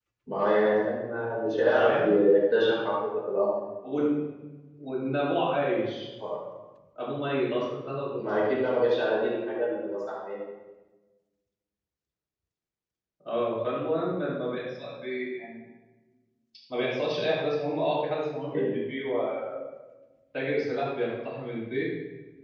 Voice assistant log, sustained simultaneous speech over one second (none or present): none